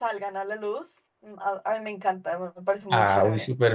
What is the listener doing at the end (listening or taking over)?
taking over